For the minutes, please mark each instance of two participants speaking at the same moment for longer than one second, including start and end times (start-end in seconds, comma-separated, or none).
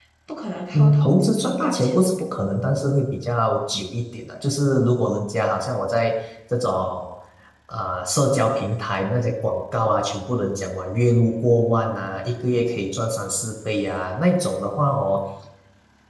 0.7-2.1